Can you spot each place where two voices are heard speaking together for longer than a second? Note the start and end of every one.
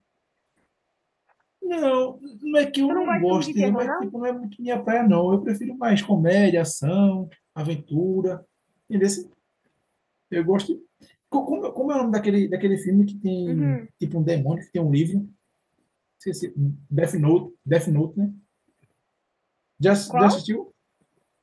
2.9-4.1

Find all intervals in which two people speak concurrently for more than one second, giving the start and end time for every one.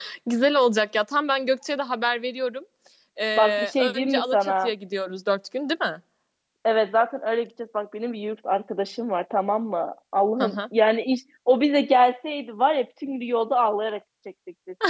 3.4-4.7

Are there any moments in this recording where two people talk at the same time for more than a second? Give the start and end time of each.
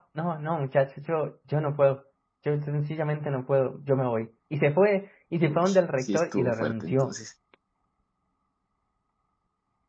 5.5-7.1

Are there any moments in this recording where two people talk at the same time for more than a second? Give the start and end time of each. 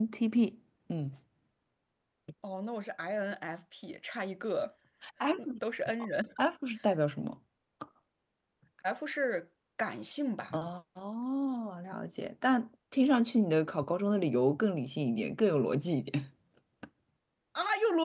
none

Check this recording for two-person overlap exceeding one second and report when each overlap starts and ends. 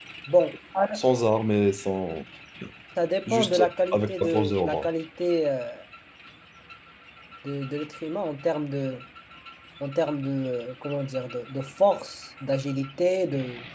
3.3-4.9

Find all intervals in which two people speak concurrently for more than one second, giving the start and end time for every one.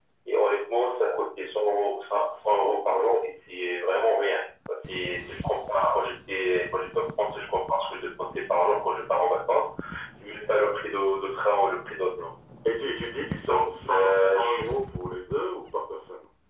13.4-14.7

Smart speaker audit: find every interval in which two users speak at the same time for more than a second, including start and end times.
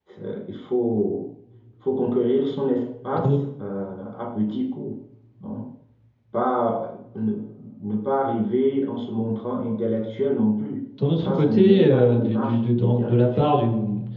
11.2-13.5

